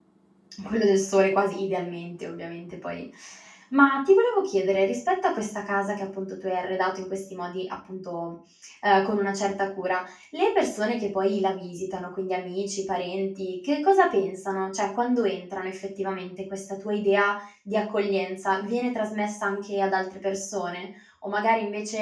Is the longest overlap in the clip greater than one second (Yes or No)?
No